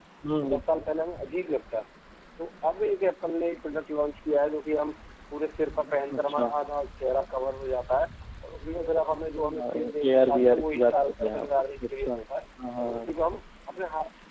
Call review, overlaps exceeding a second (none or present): present